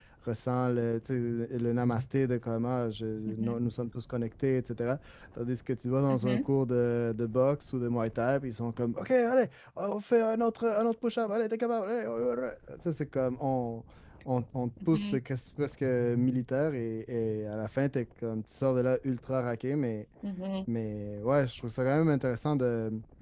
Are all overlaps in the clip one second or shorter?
Yes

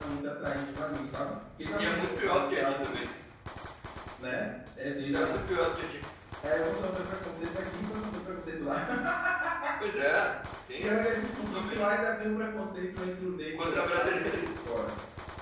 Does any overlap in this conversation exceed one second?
Yes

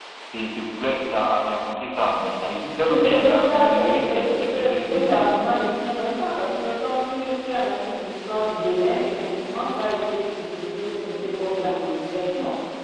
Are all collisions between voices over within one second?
No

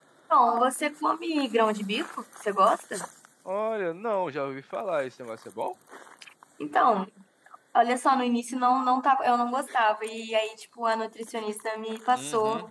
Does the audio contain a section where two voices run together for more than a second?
No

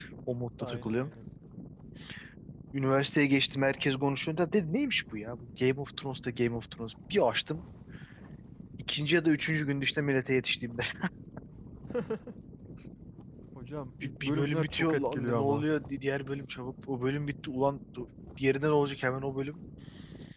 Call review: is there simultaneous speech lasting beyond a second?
Yes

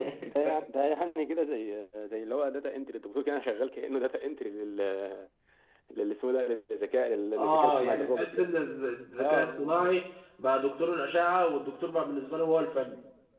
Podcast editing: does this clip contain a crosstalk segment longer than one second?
Yes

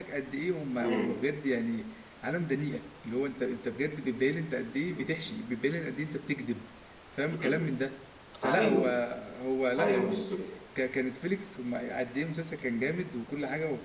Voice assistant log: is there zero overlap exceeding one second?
Yes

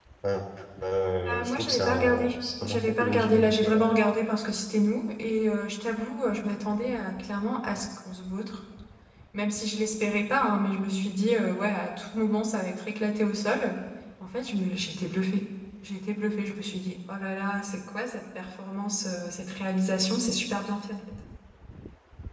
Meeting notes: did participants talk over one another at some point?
Yes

